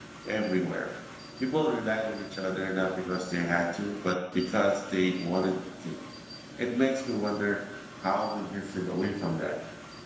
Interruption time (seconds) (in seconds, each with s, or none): none